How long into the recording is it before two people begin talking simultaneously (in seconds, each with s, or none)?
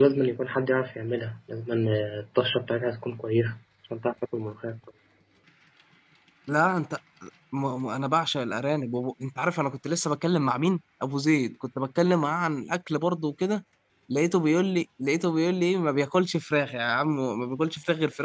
none